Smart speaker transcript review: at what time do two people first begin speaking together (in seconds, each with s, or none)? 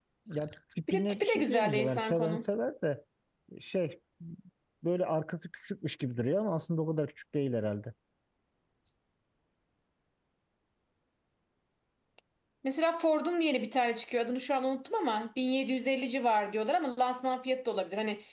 0.9 s